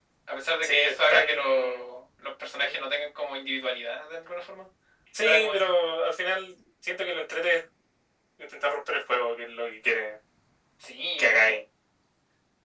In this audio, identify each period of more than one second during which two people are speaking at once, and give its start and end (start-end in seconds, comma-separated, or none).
0.6-2.0